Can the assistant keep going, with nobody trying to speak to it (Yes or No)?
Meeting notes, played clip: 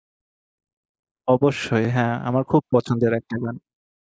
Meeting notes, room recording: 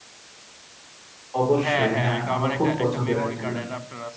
No